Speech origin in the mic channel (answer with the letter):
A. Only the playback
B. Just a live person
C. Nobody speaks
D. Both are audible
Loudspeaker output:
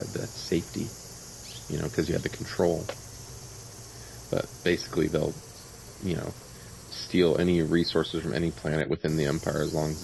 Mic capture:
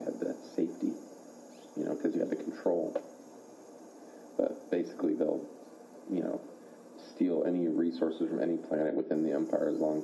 A